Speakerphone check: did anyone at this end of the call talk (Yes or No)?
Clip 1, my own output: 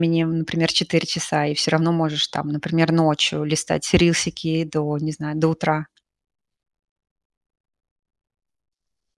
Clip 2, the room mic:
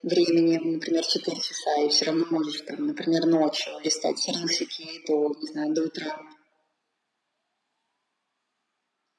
No